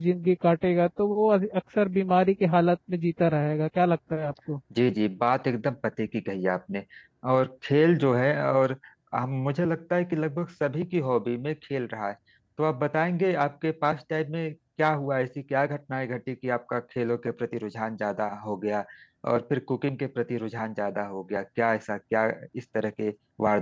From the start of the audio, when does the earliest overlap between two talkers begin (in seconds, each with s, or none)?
none